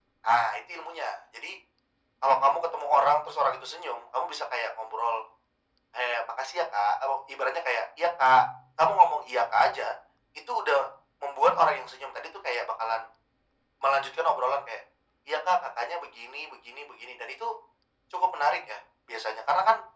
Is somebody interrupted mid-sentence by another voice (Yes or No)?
No